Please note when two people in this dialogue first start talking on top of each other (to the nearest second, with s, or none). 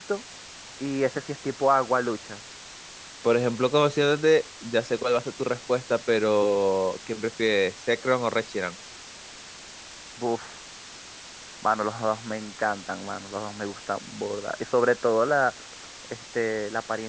none